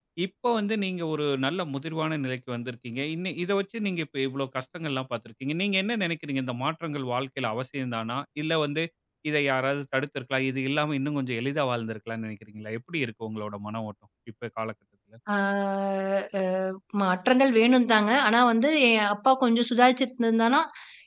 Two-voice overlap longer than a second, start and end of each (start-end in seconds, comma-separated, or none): none